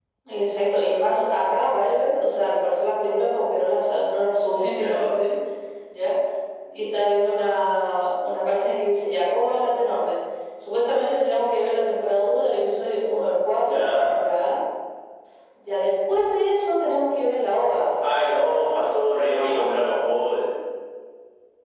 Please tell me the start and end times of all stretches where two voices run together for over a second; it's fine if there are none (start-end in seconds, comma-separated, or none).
none